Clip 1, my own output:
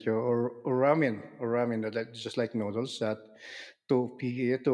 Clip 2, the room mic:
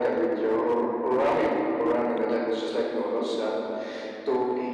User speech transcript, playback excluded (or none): none